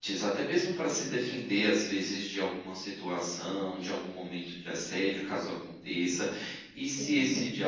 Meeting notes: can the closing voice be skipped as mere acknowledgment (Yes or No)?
Yes